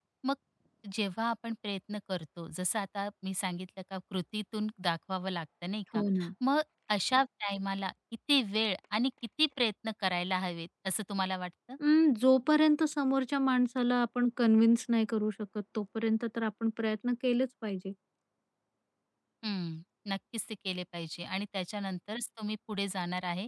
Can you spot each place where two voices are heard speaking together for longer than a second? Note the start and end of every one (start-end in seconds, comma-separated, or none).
none